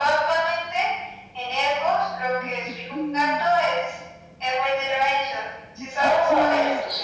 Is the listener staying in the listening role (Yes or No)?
No